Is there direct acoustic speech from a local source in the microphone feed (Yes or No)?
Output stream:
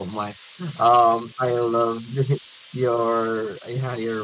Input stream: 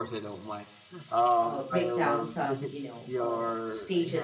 Yes